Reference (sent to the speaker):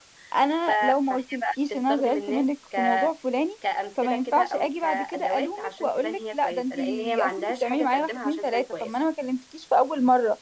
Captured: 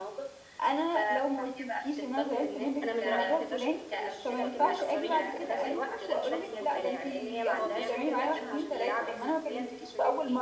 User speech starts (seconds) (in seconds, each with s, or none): 2.8 s